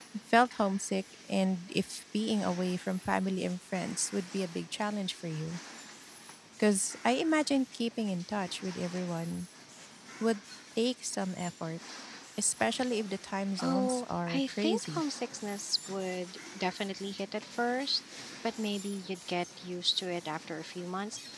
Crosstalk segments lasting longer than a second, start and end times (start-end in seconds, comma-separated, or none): 13.6-15.0